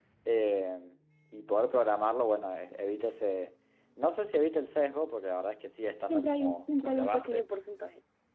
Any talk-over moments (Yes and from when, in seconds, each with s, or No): Yes, from 6.1 s